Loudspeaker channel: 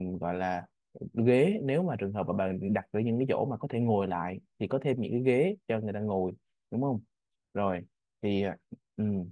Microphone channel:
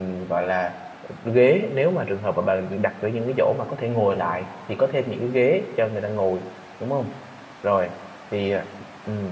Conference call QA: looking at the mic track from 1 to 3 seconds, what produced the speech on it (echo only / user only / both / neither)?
echo only